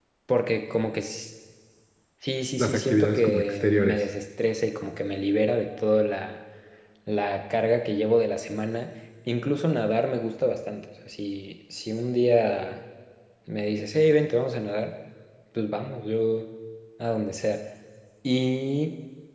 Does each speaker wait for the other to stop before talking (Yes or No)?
No